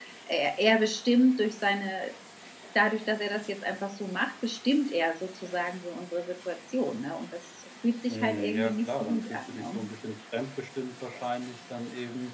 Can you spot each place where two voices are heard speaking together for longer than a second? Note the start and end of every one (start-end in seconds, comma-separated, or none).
8.1-9.8